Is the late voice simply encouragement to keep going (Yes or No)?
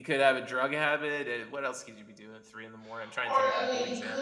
No